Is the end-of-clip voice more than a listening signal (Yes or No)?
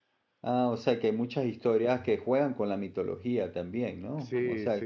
Yes